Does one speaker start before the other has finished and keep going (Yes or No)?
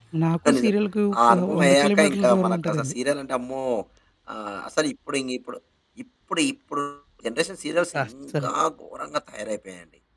Yes